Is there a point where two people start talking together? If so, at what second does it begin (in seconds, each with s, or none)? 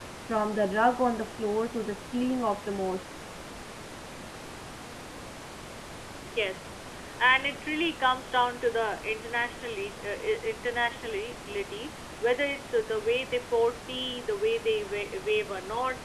none